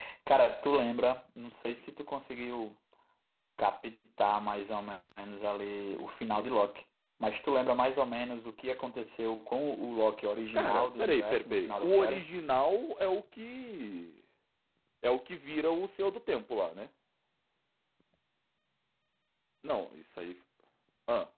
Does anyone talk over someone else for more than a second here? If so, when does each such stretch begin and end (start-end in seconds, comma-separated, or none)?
10.5-12.2